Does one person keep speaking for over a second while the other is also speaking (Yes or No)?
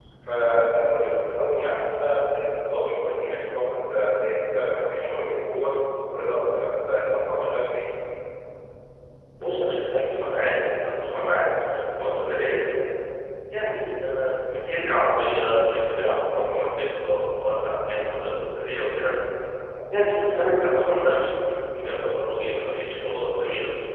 No